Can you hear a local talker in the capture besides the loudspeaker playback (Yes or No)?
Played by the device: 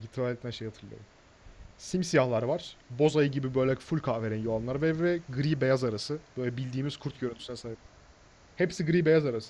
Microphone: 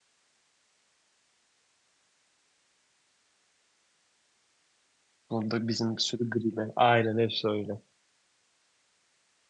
Yes